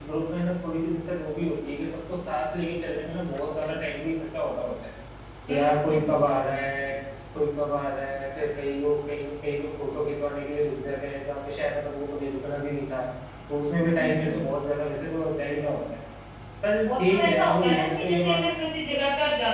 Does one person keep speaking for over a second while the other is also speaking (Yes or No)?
Yes